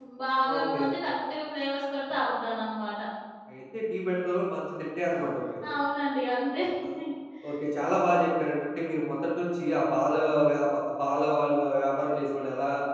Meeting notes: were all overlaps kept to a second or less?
Yes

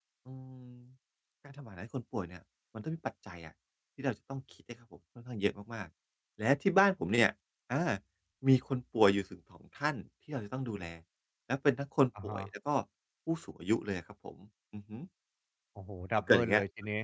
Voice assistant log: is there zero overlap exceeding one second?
Yes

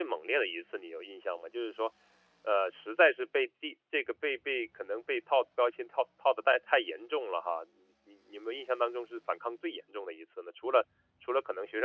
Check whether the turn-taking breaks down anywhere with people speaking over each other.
No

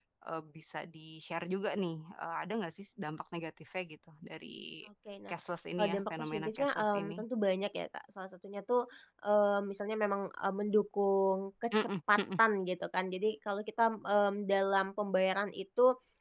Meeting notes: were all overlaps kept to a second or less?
No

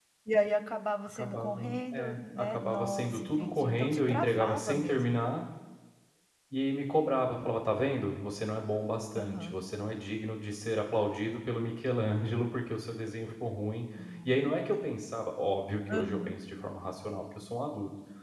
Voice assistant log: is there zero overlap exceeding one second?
No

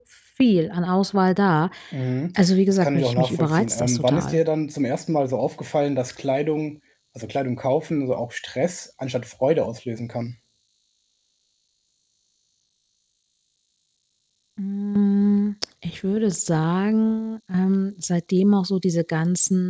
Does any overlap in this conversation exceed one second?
Yes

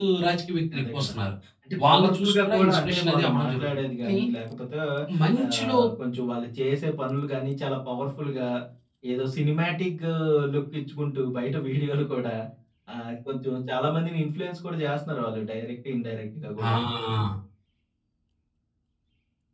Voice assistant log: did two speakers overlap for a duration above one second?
Yes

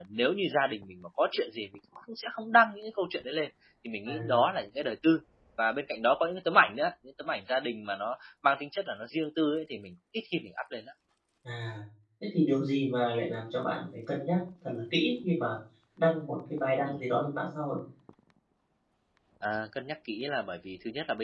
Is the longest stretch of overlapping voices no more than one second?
Yes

